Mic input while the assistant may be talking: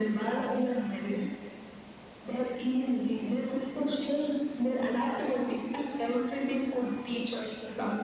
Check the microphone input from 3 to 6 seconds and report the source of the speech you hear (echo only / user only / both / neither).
echo only